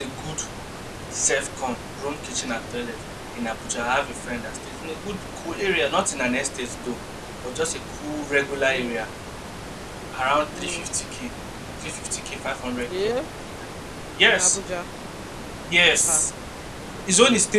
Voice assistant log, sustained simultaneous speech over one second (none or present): none